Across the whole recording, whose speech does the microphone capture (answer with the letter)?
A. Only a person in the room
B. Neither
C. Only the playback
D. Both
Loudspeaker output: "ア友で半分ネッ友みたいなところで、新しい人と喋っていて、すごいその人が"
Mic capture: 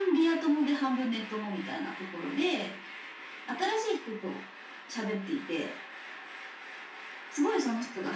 C